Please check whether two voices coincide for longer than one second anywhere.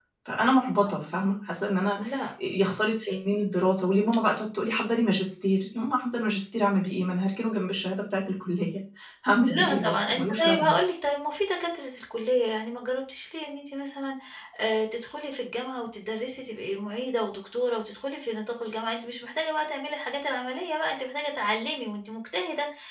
Yes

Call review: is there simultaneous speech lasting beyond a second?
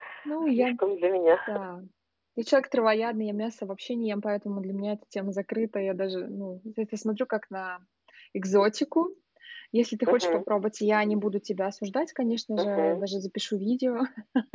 No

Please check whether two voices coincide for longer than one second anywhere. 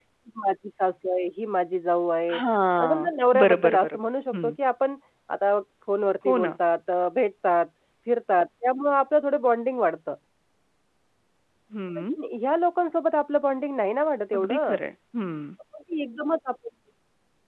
Yes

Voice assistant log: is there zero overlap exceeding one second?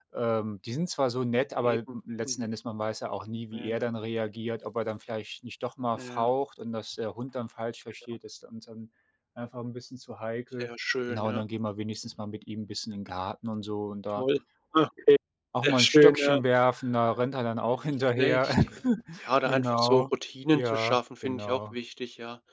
No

